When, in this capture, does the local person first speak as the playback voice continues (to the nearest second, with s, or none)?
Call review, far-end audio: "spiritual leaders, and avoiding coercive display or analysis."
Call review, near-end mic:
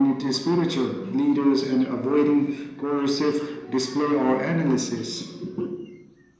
none